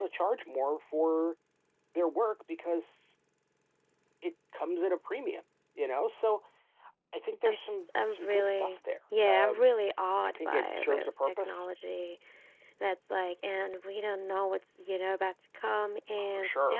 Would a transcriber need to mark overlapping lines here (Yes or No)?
Yes